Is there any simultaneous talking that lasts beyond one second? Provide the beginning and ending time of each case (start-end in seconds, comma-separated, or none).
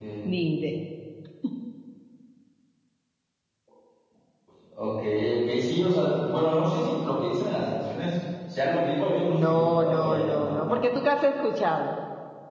9.3-10.8